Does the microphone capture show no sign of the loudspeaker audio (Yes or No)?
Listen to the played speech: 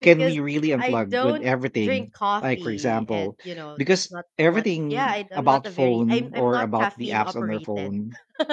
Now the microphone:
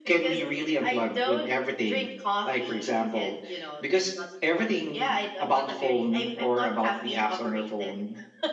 No